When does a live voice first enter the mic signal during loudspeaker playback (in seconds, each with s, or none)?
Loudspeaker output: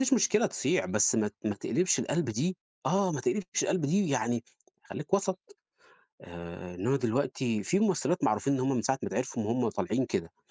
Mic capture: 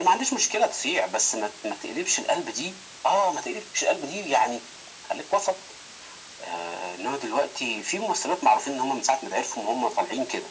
none